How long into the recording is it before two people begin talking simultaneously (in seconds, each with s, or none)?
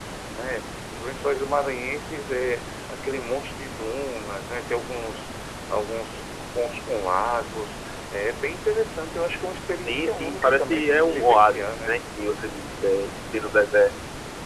9.8 s